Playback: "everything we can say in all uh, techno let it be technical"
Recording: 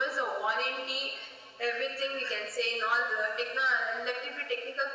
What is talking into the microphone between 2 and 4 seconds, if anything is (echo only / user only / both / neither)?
echo only